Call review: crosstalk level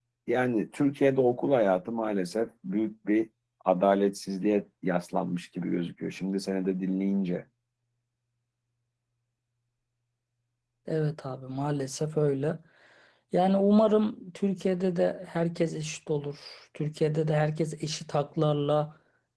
none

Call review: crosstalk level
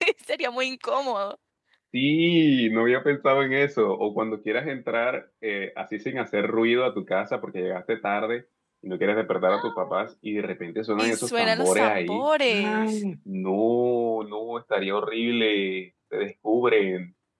present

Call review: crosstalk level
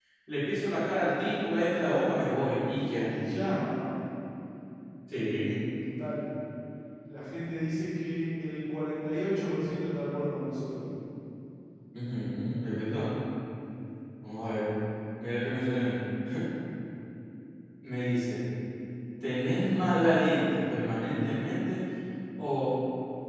none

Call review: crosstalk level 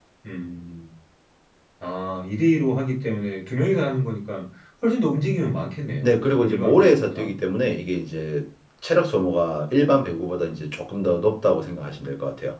present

